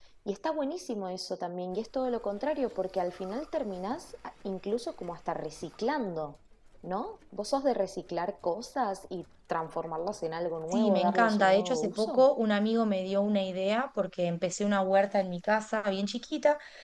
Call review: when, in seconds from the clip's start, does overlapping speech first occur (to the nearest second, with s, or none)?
11 s